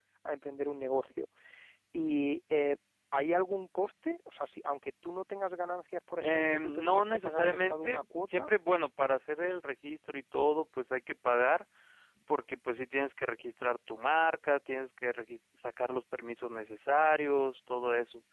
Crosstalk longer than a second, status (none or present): present